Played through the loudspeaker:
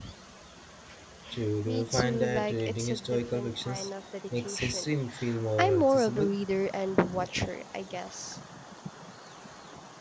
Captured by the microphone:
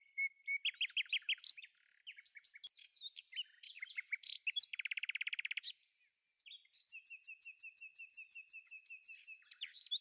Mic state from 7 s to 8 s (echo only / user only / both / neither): neither